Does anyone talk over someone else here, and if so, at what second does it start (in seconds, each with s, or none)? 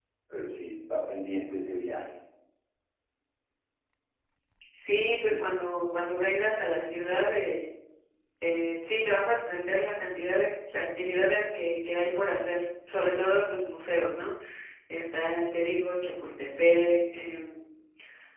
none